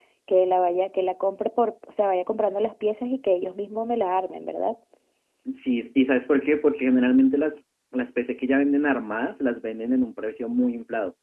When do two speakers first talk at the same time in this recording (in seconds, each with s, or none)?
none